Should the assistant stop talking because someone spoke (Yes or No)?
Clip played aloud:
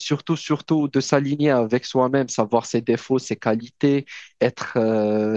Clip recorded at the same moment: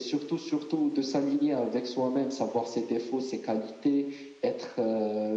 No